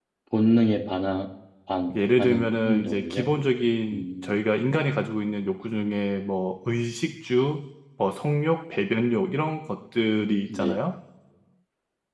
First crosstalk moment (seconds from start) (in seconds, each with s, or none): 1.9 s